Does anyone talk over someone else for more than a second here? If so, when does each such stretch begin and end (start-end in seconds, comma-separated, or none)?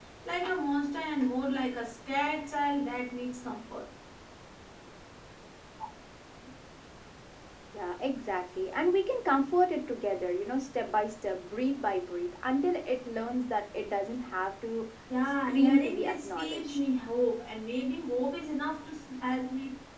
15.2-16.8